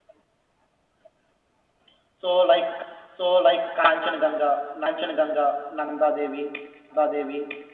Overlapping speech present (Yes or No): No